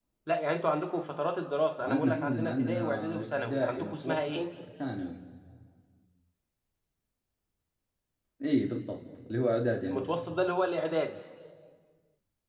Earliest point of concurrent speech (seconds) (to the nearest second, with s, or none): 2 s